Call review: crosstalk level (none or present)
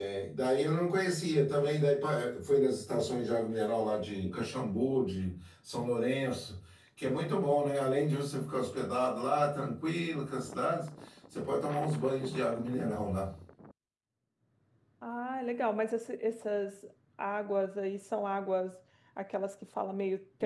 none